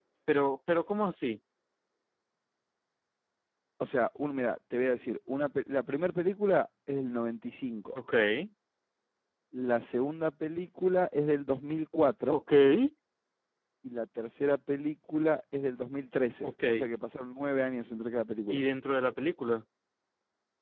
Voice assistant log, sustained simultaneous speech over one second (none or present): none